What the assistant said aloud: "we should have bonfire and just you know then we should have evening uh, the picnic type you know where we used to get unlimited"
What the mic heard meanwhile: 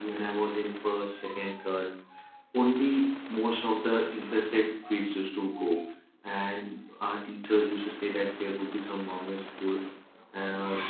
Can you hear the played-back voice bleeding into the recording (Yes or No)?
No